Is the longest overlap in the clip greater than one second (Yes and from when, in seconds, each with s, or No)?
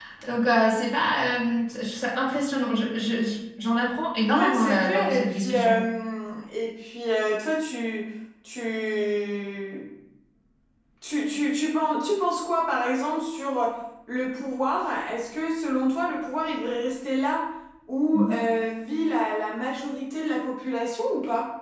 Yes, from 4.3 s